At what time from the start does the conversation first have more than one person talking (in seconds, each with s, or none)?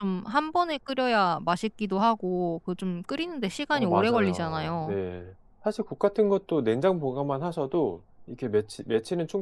3.7 s